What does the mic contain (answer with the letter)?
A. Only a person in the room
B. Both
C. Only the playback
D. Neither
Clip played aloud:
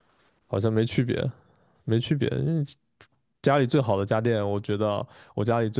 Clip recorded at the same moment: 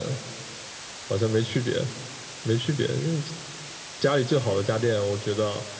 C